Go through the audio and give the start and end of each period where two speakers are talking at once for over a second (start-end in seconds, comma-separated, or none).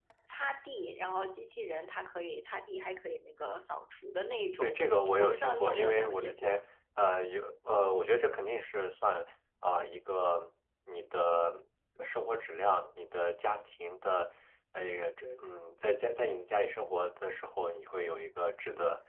5.2-6.6